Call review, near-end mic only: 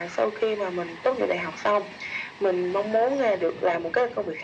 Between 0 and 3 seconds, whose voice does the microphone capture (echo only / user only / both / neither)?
echo only